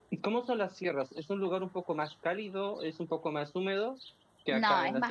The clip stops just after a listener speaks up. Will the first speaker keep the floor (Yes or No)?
No